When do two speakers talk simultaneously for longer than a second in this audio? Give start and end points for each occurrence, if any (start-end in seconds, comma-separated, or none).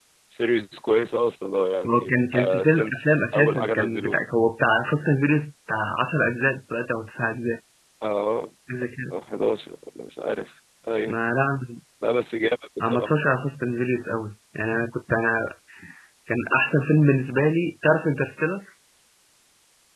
1.9-4.2